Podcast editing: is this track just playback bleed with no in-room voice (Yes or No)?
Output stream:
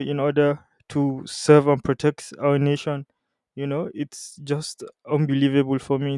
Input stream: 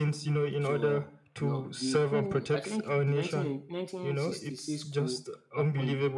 No